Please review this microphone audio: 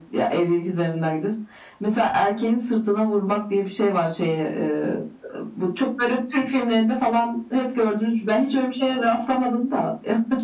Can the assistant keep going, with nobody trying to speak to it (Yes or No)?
Yes